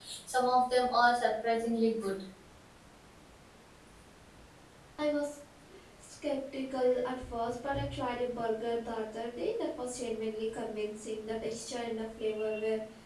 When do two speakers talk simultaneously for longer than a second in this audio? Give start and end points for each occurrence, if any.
none

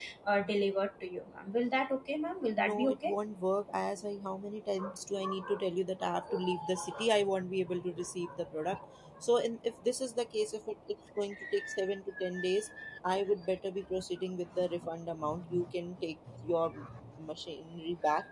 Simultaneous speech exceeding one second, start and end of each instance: none

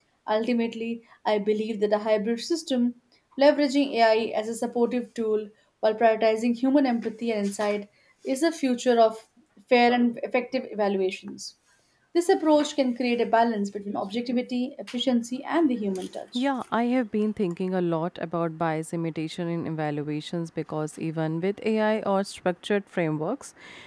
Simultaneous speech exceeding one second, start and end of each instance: none

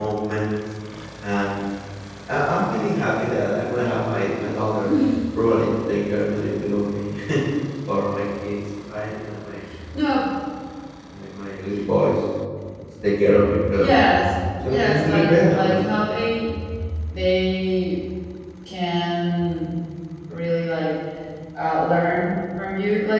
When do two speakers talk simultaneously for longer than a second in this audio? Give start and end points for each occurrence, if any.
14.5-15.9

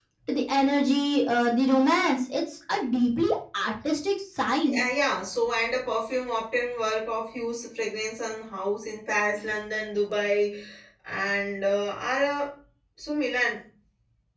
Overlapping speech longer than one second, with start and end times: none

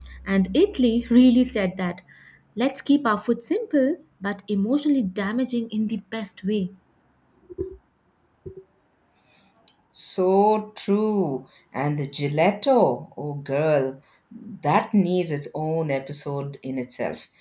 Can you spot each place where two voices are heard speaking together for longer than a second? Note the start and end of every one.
none

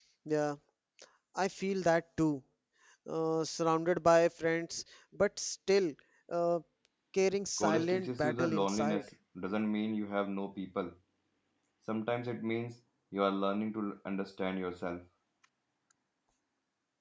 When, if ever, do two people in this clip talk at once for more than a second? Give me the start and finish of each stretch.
7.6-9.1

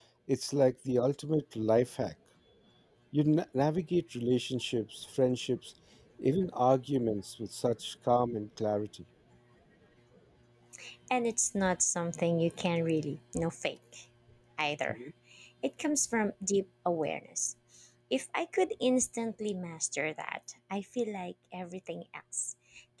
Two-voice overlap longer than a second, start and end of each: none

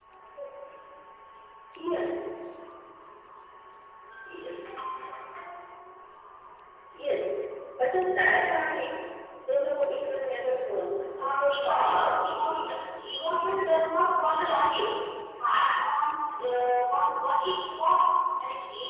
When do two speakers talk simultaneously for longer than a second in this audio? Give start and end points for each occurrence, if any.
11.2-12.6

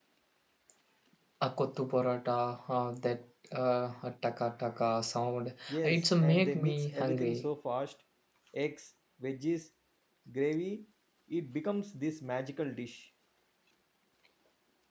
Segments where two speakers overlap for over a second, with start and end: 5.7-7.5

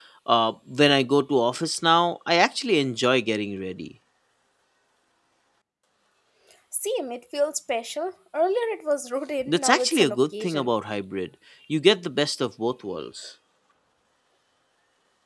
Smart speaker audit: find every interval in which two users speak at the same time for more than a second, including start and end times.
9.5-10.7

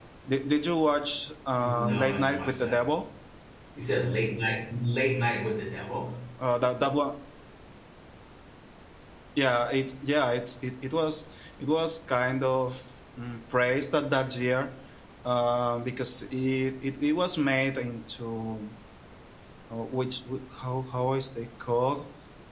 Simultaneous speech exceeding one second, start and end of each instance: 1.6-2.8

